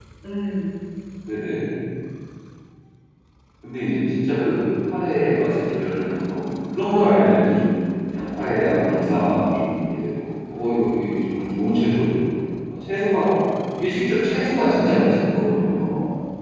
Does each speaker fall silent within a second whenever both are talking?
No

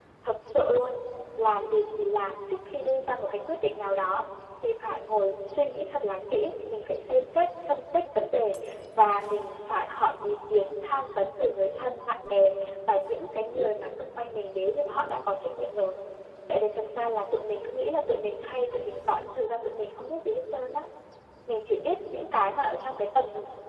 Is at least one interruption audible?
No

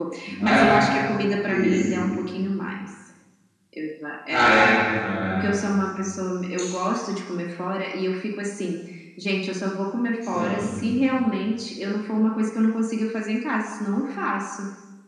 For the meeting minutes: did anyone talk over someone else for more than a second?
No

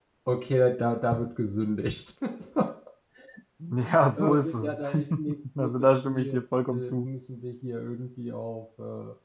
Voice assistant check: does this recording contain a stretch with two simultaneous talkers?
Yes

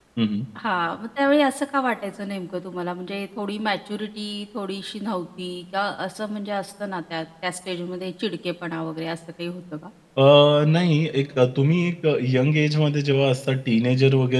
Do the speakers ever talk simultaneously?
No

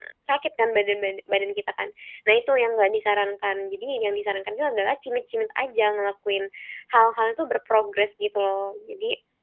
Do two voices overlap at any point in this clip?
No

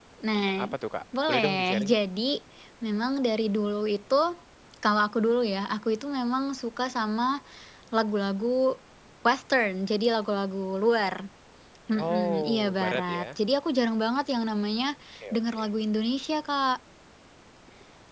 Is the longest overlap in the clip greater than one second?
Yes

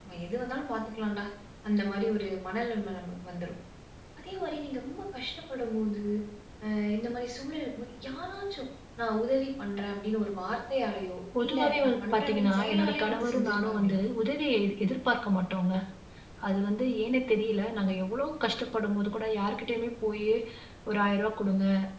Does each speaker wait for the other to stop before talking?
No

